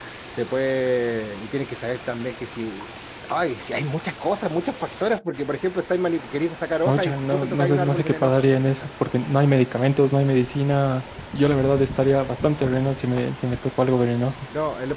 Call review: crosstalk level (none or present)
present